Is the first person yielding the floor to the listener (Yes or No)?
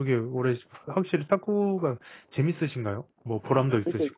Yes